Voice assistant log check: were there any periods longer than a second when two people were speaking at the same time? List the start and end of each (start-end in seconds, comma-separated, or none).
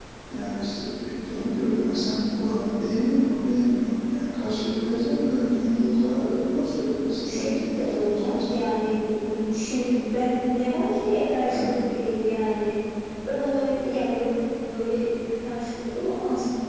7.3-8.6